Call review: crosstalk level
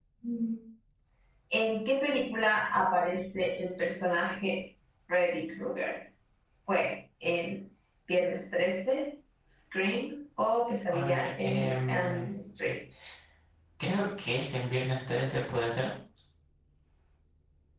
present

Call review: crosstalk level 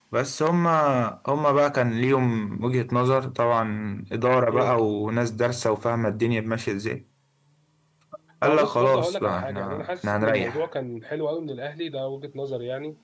present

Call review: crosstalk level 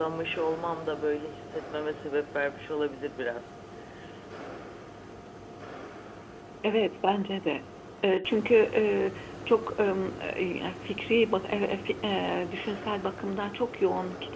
none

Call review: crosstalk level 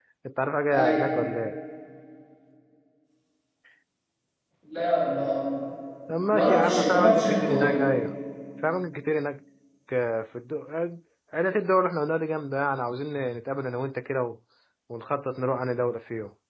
present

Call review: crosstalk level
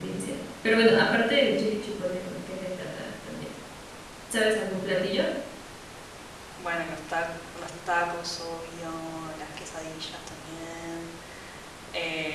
none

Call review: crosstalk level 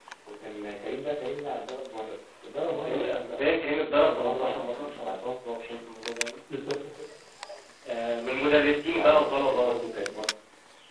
present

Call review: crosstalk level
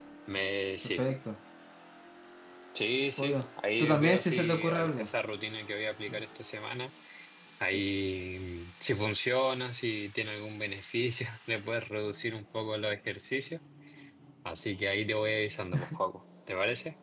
present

